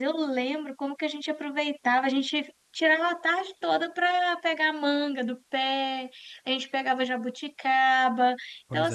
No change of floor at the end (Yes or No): Yes